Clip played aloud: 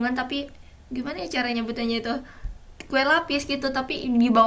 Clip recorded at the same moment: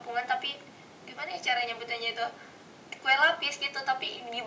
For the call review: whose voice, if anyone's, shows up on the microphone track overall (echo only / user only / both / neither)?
echo only